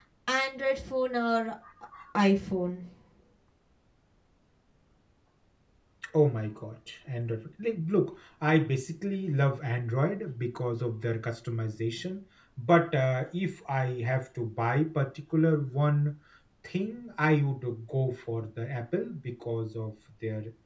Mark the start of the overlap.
none

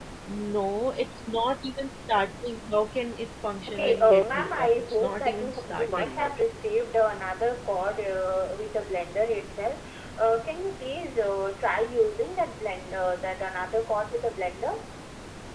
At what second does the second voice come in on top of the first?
3.7 s

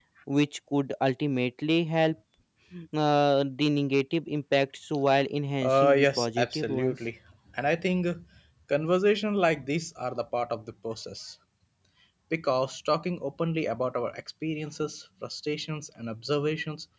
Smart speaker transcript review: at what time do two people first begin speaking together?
5.6 s

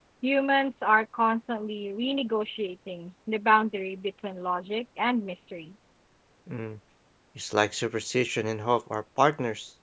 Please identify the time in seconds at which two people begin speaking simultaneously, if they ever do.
none

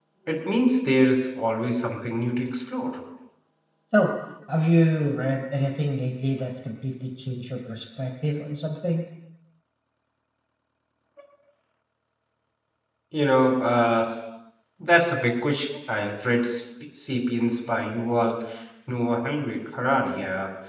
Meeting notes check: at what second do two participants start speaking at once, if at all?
none

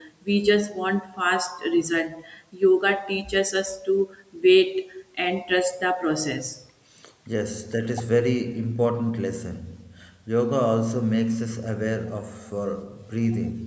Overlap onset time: none

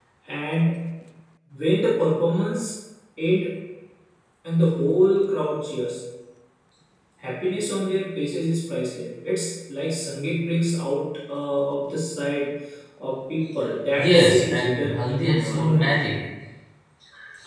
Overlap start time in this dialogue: 14.0 s

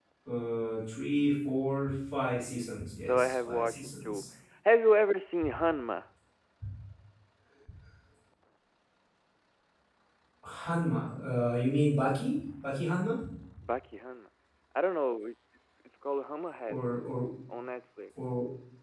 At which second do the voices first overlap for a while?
3.0 s

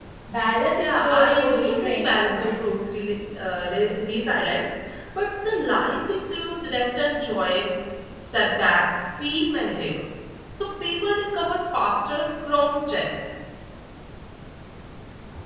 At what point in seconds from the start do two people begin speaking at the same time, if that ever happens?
0.8 s

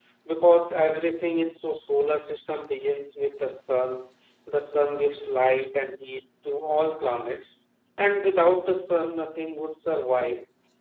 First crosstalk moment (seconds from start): none

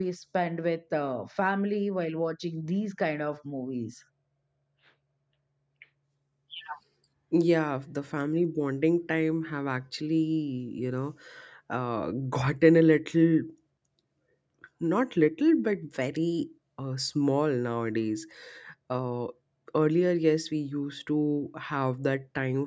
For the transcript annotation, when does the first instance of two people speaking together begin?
none

